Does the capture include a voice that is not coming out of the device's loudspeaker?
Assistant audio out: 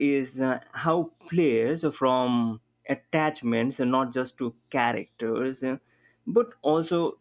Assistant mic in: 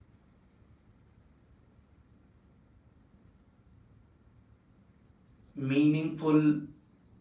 Yes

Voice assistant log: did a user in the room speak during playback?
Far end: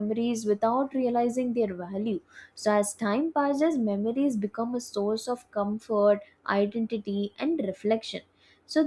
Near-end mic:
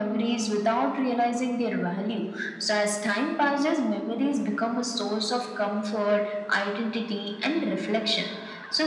No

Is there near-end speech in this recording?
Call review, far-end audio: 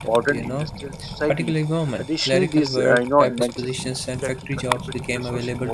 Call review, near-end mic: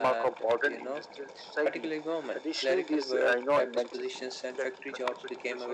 No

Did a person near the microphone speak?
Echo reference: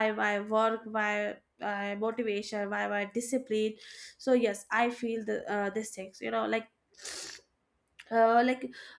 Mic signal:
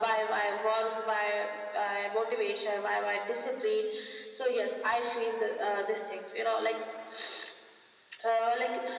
No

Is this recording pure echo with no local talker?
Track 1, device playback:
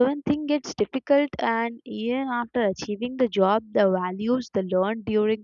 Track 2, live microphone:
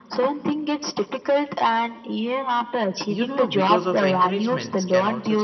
No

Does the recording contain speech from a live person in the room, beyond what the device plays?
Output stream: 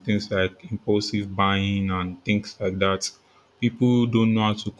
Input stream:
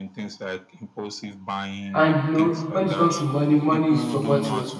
Yes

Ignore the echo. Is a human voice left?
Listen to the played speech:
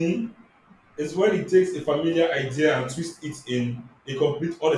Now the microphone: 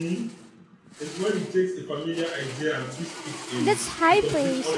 Yes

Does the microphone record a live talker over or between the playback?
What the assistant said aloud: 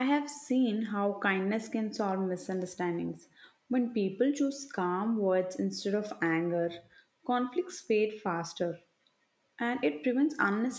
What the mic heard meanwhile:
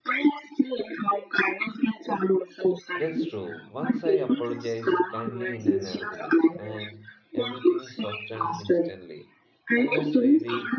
Yes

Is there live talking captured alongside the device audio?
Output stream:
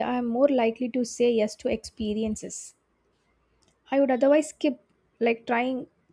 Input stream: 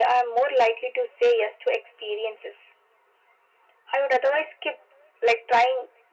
No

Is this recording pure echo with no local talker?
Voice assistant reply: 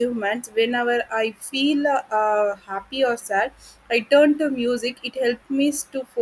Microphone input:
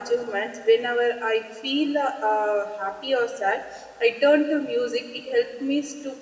Yes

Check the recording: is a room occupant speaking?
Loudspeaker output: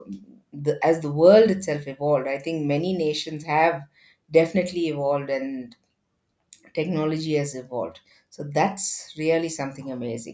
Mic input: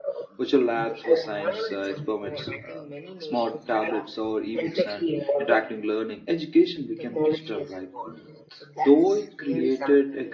Yes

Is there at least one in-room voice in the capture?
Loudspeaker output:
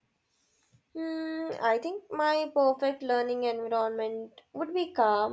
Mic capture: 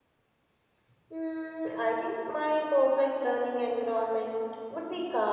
No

